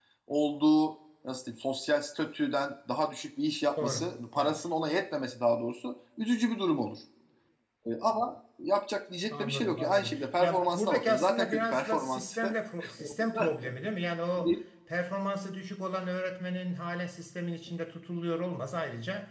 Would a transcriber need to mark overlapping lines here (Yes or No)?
Yes